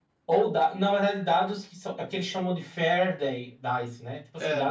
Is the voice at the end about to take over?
No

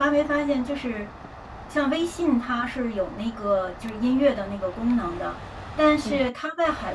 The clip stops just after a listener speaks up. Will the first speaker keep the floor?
Yes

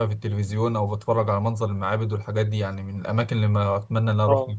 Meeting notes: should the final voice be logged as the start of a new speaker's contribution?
Yes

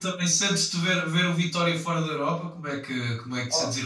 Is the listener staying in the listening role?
No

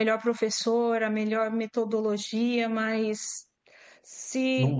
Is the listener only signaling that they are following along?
Yes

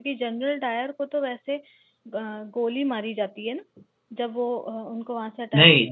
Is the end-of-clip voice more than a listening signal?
Yes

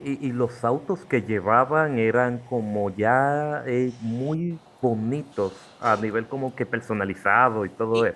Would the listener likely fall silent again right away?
No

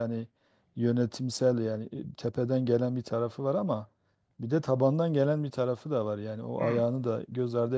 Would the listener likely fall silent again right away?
Yes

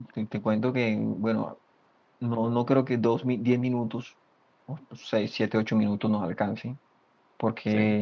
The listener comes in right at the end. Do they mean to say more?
No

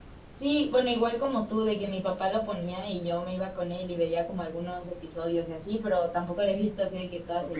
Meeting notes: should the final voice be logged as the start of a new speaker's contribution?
Yes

